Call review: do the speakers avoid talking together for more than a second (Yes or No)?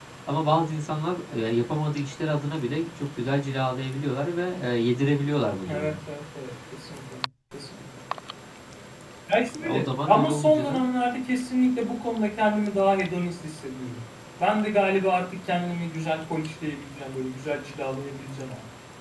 No